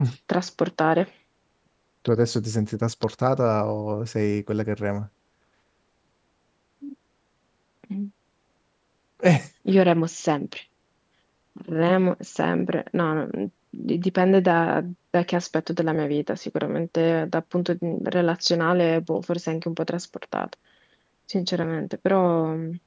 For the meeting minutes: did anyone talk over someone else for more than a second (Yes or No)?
No